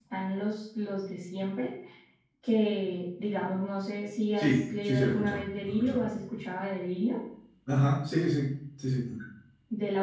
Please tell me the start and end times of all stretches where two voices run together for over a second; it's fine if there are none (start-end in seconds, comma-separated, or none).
4.4-6.0